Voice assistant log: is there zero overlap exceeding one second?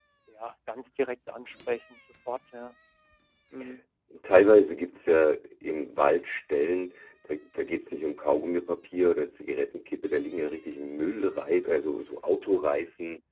Yes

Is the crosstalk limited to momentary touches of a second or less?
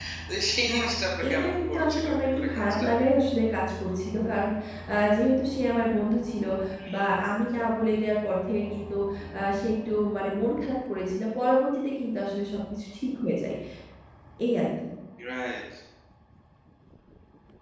No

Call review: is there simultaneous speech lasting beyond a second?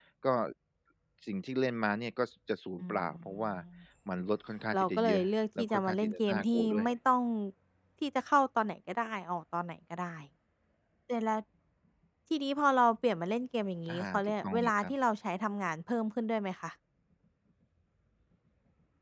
Yes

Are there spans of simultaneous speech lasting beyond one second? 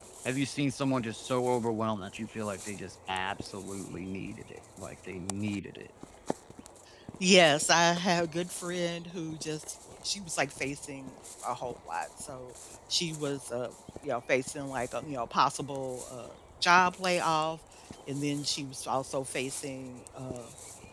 No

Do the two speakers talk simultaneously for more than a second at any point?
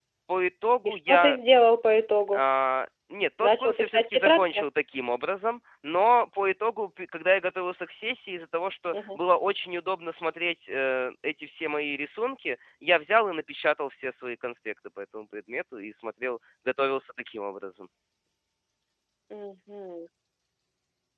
Yes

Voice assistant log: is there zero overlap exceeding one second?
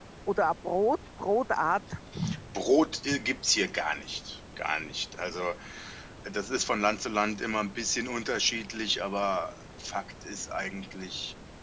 Yes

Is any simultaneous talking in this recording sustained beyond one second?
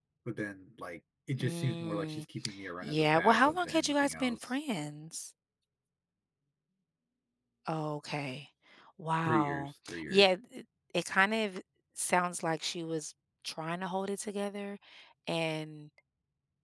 Yes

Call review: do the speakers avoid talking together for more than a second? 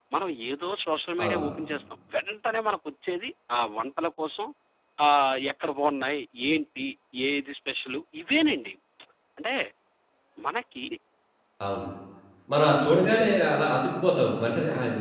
Yes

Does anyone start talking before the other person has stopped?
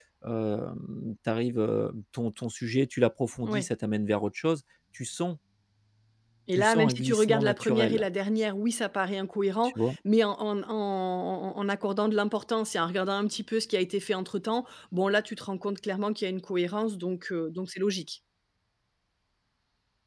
Yes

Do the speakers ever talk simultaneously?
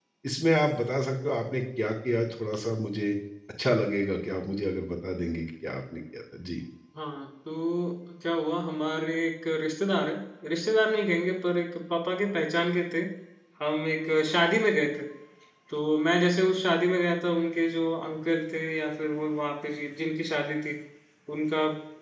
No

